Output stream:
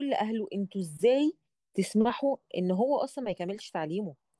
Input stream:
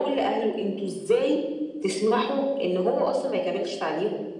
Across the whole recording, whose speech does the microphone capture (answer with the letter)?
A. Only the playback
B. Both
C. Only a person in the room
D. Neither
A